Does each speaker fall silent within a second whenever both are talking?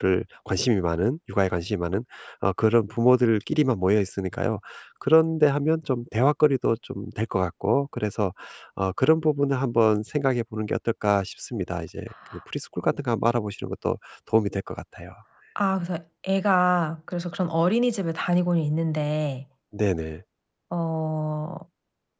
Yes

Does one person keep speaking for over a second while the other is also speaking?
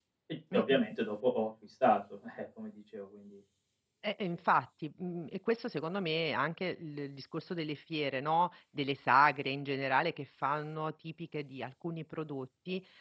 No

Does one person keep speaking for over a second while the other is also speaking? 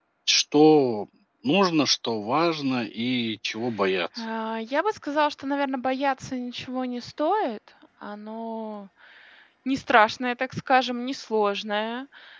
No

